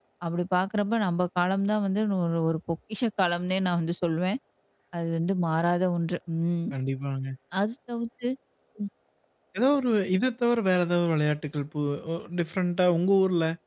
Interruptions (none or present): none